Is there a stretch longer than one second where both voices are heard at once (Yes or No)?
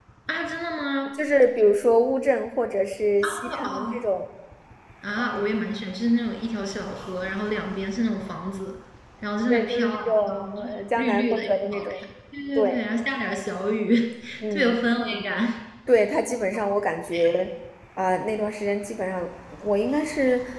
Yes